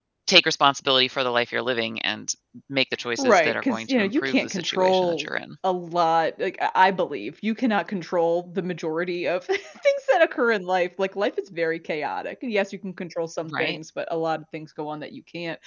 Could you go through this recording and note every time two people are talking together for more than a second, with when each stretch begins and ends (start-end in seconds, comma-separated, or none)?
3.2-5.3